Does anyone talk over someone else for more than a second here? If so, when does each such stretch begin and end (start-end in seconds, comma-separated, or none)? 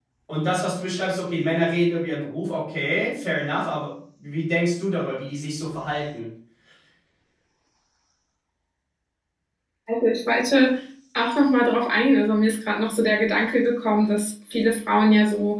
none